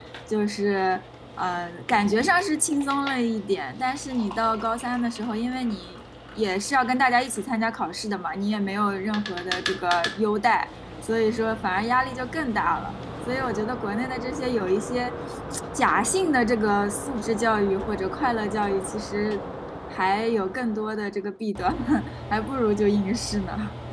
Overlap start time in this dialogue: none

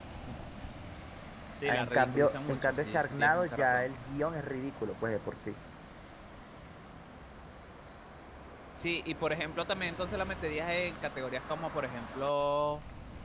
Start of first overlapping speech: 2 s

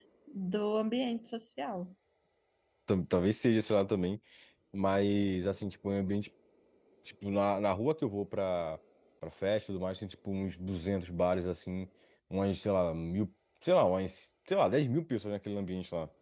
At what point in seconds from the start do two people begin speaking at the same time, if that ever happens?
none

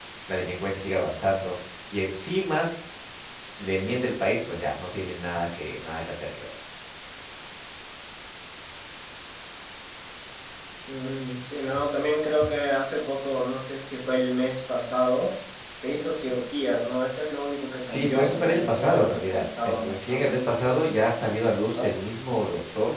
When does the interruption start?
18 s

